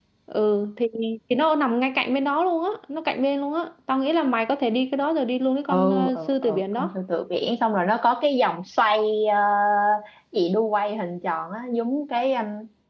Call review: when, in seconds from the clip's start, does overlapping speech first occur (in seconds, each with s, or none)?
5.7 s